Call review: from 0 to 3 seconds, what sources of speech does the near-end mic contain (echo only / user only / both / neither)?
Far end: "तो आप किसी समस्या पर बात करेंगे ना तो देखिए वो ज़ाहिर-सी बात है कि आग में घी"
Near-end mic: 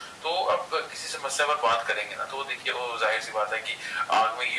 echo only